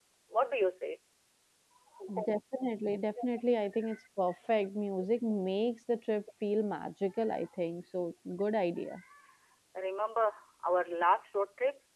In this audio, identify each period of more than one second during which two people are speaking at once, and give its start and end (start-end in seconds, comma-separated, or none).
none